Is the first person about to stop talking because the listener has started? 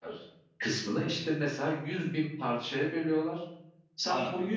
No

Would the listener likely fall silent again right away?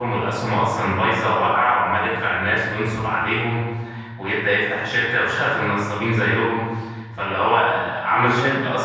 Yes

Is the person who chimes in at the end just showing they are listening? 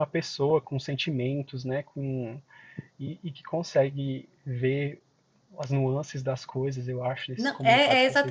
No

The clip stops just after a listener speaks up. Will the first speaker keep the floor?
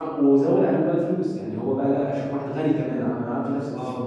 Yes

